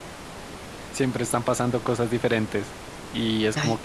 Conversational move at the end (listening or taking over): listening